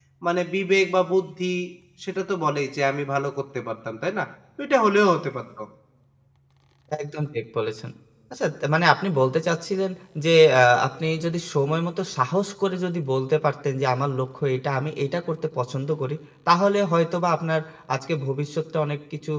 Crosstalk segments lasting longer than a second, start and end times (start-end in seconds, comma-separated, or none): none